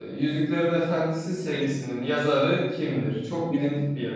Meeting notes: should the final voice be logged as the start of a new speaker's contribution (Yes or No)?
Yes